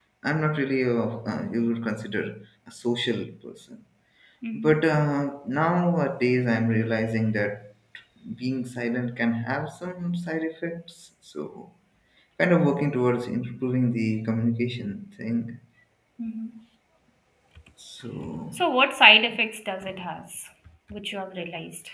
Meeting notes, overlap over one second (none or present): none